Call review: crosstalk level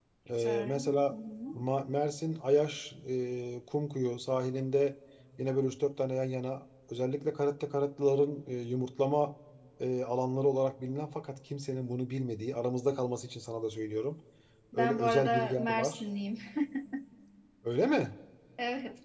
present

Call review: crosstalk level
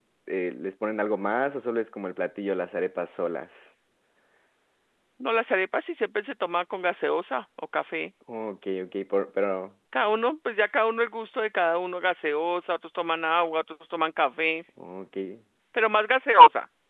none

